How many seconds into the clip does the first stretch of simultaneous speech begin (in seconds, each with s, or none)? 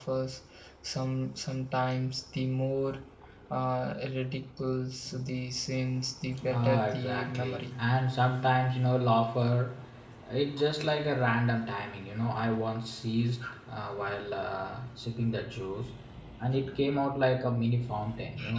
6.3 s